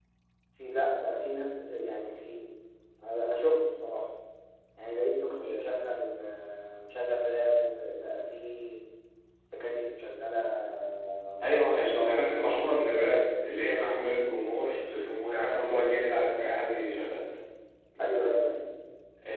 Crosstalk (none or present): present